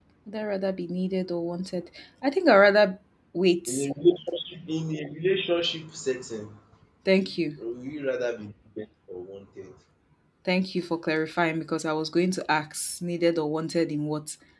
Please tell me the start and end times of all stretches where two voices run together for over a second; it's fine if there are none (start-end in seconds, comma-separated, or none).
none